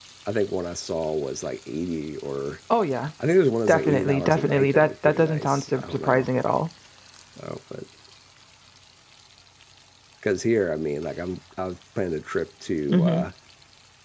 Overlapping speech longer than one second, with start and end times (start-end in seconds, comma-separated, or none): 3.7-6.3